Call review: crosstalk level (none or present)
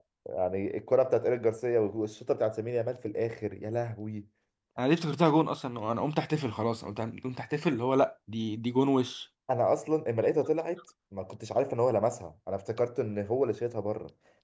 none